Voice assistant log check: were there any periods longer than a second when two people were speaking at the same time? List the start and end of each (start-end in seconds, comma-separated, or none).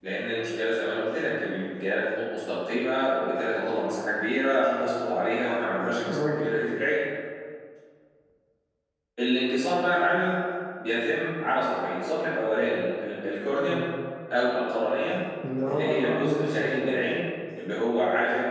15.7-17.0